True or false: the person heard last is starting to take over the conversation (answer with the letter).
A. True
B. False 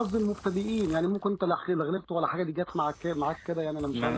A